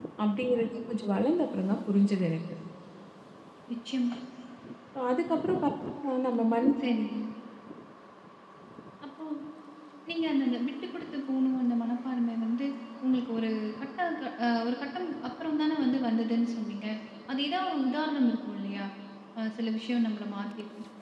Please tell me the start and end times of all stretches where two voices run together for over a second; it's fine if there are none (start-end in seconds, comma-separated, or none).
none